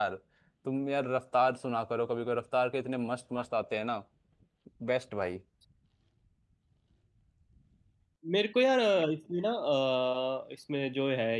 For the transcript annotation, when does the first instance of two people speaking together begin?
none

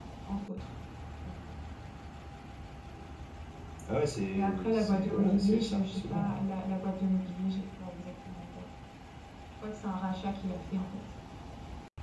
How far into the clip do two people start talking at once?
4.3 s

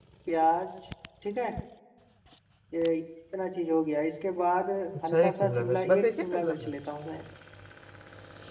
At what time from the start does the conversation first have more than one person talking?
5.1 s

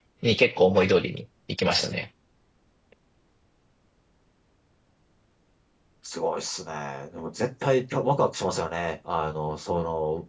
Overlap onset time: none

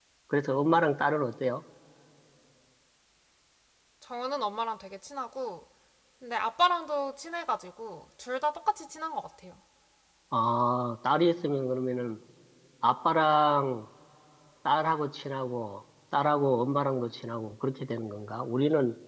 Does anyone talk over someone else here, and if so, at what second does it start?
none

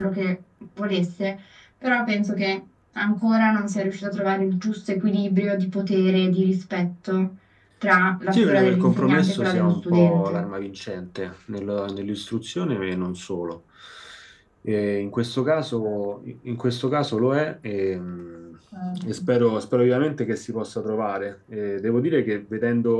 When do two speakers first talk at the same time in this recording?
8.3 s

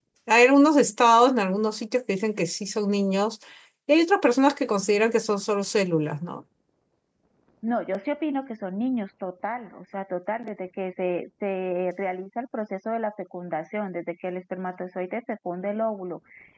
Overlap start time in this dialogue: none

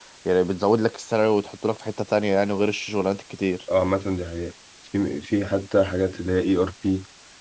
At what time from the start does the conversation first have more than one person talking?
none

